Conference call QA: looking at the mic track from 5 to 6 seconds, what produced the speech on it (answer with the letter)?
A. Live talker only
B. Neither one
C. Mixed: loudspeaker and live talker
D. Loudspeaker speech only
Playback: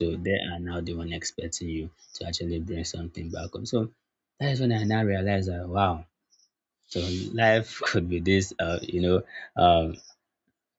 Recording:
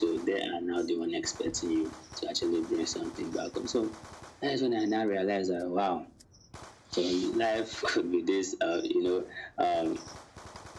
D